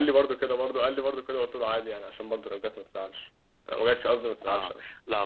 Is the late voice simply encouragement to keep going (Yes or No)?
No